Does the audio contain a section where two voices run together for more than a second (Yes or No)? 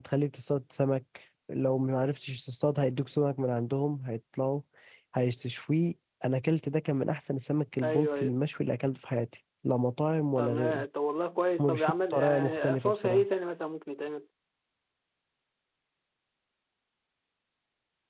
Yes